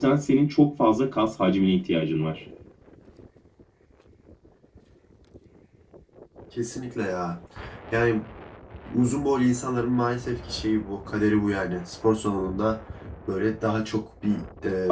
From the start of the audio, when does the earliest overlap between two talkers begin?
none

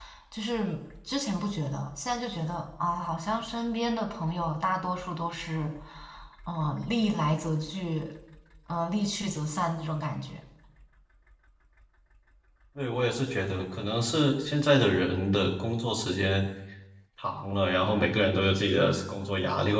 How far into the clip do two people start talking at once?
none

